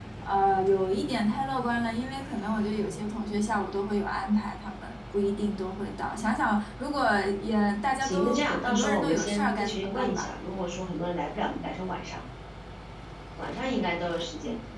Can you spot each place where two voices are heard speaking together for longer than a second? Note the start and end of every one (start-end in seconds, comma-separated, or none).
8.0-10.3